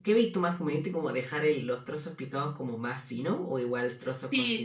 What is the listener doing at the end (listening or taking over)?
taking over